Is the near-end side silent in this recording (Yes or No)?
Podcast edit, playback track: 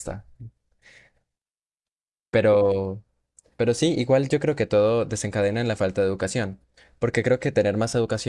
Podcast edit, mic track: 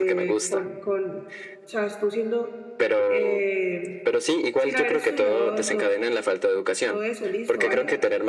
No